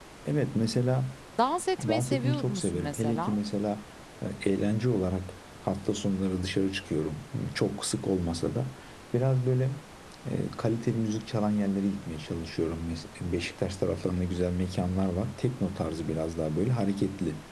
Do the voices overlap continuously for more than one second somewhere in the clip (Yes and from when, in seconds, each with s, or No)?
Yes, from 1.9 s